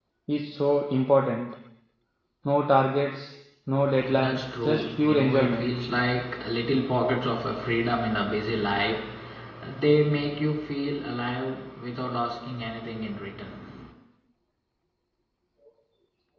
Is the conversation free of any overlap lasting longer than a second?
No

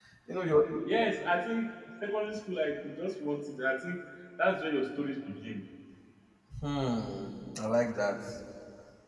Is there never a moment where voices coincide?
Yes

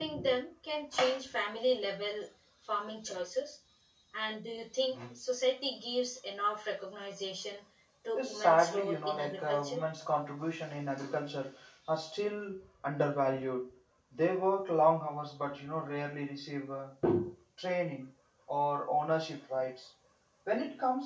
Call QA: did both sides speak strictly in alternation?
No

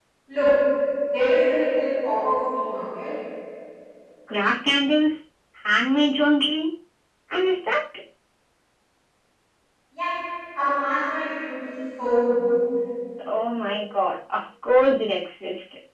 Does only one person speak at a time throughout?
Yes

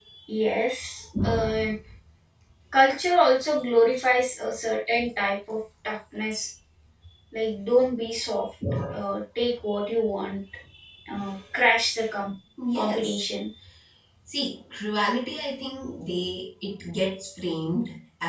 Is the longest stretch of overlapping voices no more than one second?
Yes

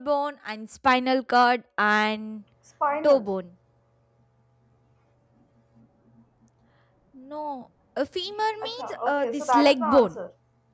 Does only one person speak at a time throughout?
No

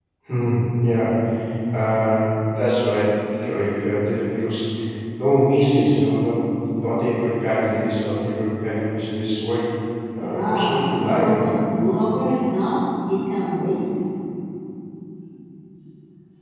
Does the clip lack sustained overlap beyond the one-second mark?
No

